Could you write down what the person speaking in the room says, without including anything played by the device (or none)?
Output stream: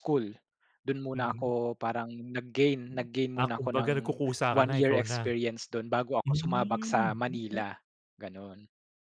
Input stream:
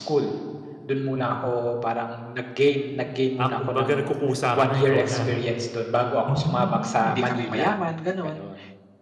hindi kami mayaman ganon.